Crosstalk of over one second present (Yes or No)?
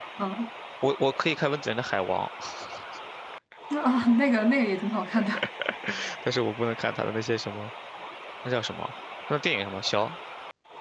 No